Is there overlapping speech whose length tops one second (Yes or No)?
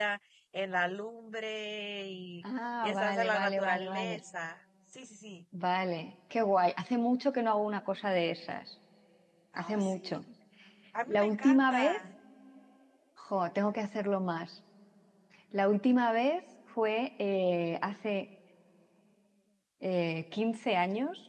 Yes